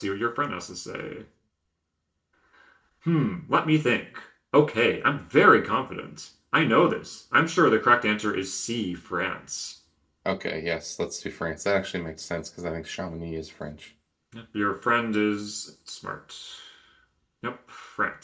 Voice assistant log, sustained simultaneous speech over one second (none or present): none